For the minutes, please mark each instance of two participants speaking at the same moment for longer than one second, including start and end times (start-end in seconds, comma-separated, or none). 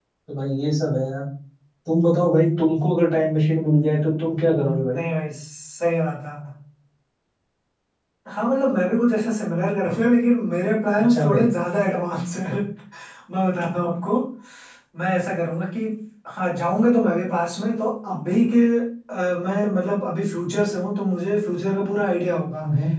none